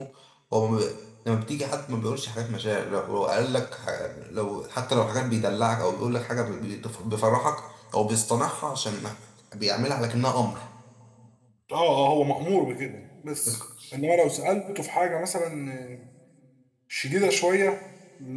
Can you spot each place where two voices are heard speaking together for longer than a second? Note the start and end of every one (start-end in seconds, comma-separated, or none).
none